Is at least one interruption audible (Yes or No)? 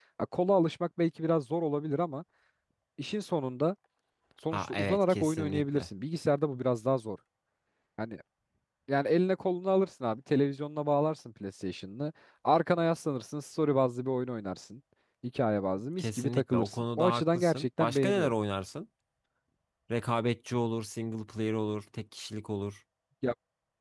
Yes